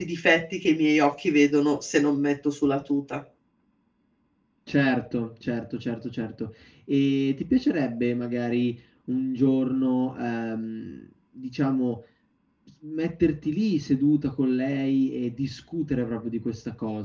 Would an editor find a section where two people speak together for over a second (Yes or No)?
No